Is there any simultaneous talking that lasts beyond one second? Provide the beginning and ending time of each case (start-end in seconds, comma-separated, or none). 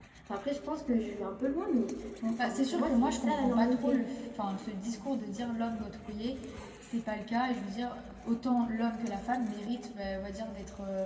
2.4-4.0